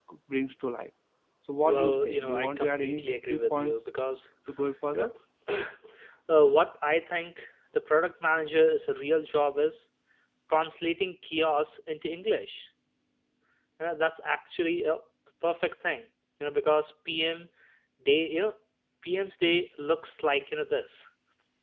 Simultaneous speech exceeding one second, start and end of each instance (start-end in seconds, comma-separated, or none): 1.6-3.8